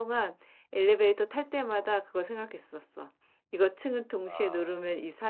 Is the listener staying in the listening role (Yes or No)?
Yes